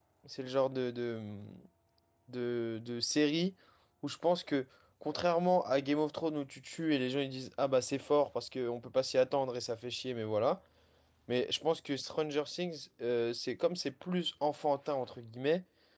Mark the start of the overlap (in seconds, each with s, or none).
none